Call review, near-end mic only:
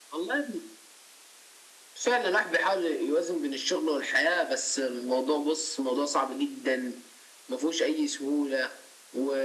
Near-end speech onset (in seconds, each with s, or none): none